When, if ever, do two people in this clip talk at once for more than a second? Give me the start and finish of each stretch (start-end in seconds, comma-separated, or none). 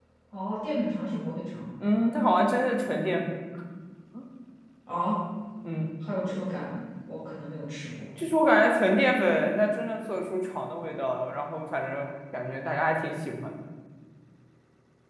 none